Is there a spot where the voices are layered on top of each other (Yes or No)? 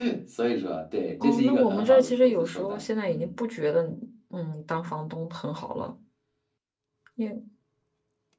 Yes